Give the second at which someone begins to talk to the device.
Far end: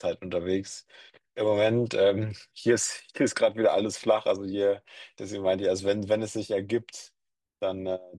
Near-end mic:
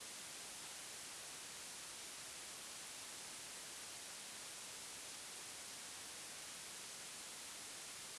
none

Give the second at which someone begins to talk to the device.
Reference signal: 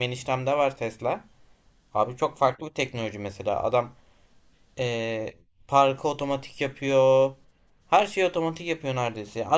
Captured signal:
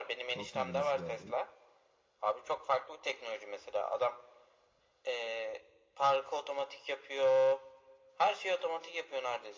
0 s

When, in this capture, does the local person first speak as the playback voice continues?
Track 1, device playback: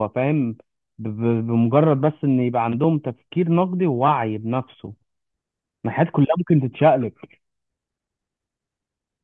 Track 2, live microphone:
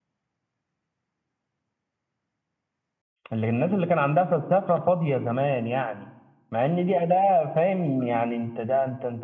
3 s

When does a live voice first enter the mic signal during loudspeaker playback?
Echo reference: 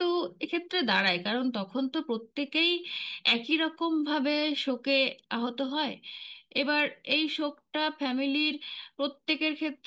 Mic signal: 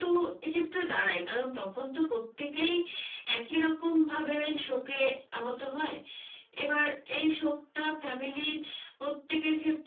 none

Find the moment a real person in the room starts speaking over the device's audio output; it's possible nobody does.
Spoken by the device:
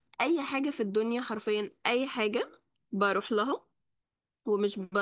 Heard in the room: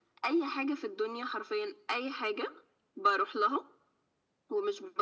none

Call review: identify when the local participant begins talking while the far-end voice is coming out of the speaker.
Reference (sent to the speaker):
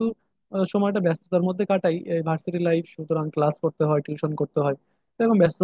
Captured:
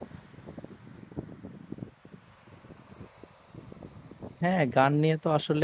4 s

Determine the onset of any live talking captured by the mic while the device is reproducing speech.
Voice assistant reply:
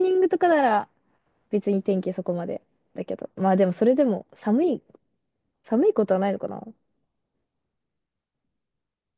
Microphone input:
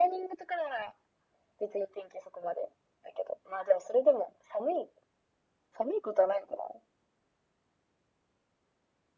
none

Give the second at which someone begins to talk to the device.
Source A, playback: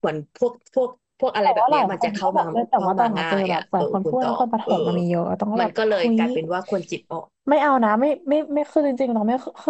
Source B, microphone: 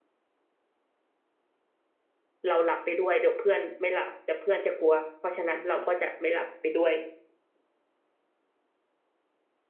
2 s

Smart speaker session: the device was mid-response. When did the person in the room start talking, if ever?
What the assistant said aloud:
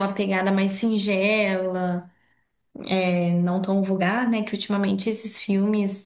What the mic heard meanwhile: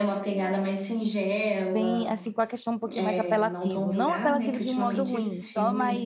2 s

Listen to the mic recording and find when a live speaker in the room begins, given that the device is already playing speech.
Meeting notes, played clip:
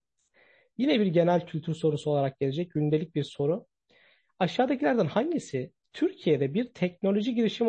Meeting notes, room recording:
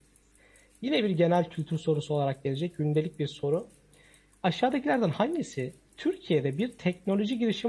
none

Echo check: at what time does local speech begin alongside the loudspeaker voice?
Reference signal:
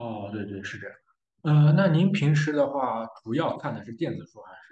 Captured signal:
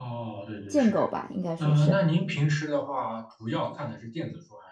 1 s

